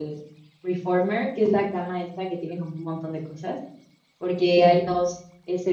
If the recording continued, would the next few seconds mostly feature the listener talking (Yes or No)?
No